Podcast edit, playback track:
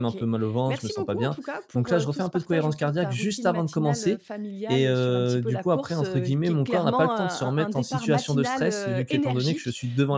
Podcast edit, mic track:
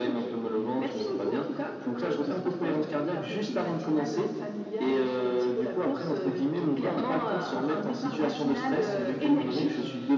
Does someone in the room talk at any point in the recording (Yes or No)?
Yes